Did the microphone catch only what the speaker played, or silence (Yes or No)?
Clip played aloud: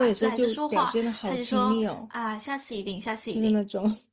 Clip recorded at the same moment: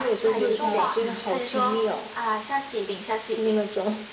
No